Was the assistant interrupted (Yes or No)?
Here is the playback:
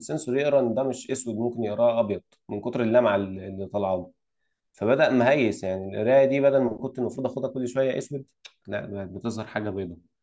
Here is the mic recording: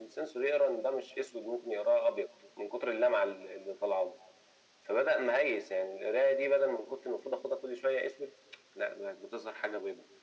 No